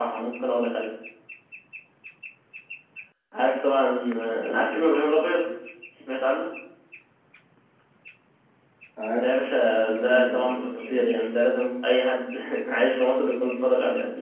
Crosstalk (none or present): present